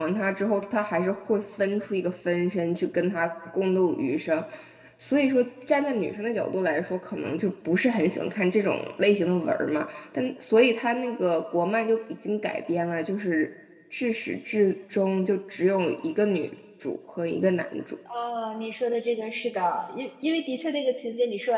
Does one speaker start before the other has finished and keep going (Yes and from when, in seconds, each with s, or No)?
No